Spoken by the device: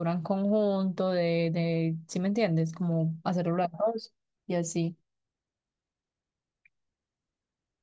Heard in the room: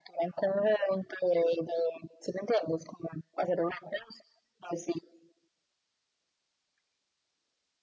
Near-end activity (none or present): none